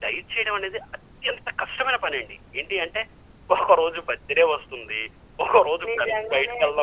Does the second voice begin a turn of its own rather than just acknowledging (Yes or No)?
Yes